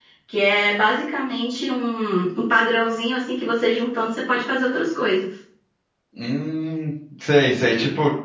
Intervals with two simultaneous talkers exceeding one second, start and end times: none

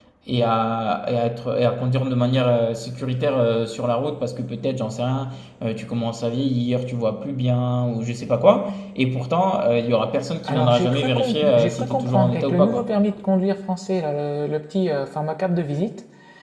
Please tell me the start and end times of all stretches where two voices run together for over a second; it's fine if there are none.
10.4-12.9

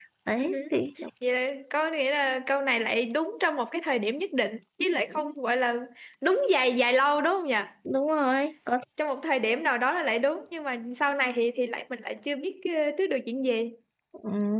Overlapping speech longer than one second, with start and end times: none

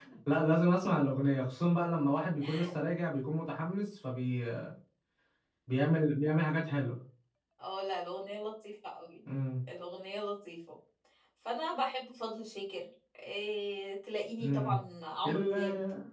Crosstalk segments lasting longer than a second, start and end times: none

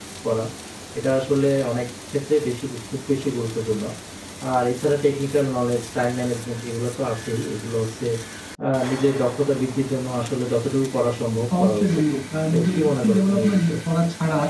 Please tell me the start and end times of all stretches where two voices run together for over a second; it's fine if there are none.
12.5-13.7

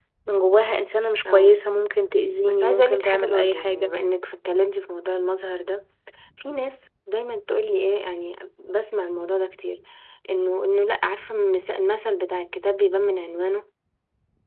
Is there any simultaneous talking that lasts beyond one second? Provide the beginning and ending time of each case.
2.5-3.9

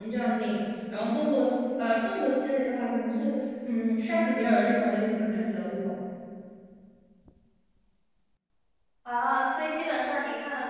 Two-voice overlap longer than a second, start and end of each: none

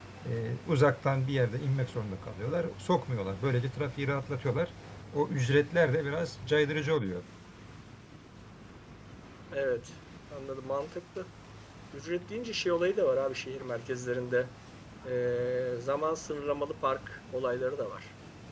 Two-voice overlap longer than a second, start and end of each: none

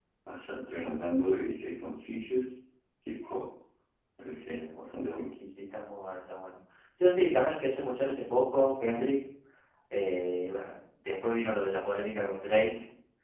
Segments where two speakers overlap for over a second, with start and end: none

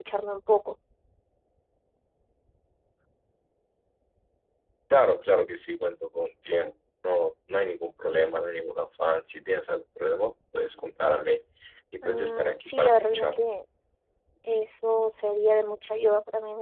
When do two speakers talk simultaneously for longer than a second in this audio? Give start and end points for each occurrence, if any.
12.0-13.4

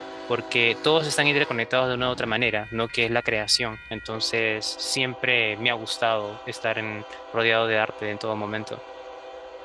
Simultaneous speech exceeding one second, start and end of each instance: none

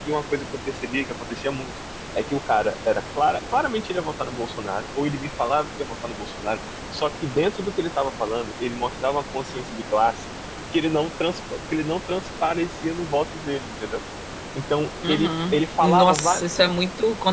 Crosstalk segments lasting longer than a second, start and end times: 15.1-16.5

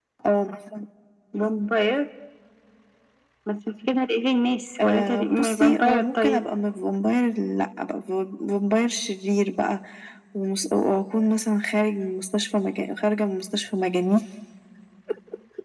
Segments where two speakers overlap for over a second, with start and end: 4.8-6.4

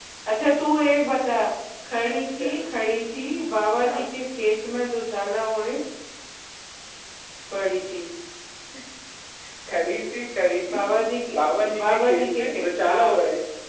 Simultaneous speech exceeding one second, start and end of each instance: 11.8-13.2

